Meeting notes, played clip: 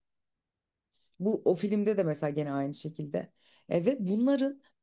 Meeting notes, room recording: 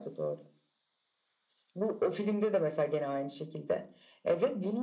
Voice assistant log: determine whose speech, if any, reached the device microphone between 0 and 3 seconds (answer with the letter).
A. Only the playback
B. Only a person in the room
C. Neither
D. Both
A